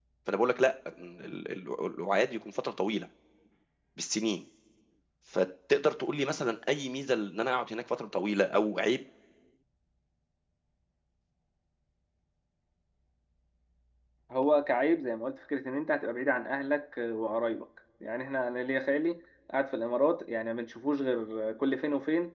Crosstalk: none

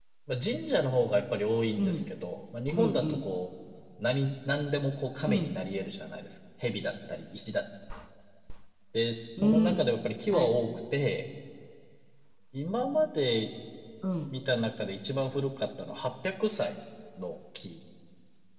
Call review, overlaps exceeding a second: none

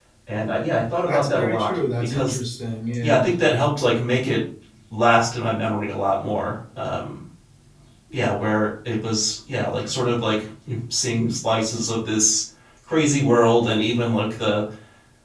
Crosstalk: present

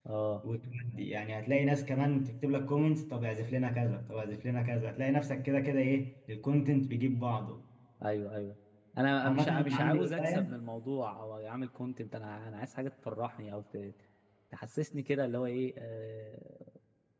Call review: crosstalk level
present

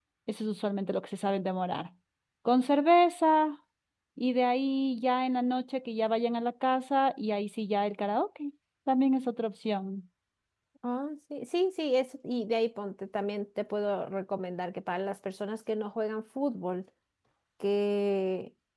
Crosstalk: none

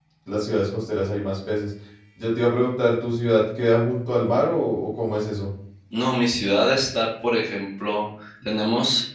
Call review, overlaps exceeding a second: none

